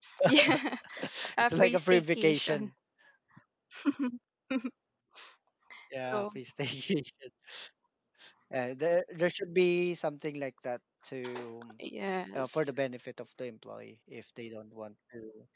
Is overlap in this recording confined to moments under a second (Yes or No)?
No